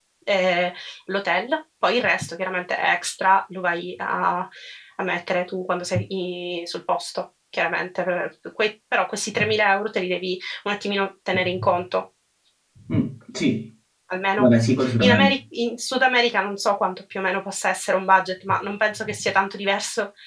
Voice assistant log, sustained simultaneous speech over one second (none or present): none